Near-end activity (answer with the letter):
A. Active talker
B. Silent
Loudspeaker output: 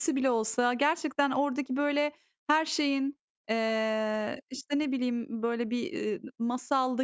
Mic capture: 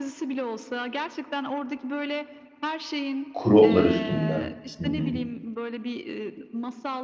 A